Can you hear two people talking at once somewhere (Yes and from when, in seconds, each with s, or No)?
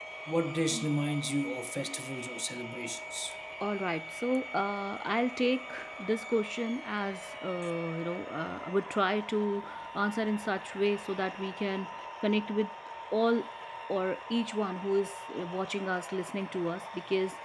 No